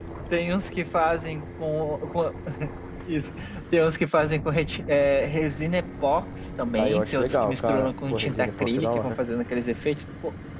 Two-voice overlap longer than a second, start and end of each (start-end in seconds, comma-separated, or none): 6.8-9.1